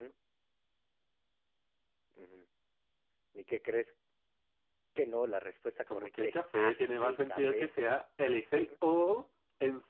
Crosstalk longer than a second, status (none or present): present